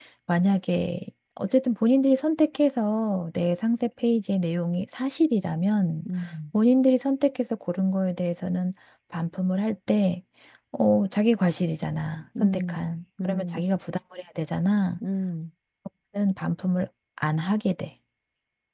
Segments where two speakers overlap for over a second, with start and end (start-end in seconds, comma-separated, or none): none